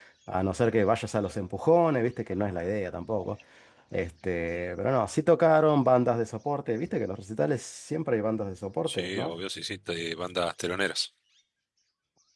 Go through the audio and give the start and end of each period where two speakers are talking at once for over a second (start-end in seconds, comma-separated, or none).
none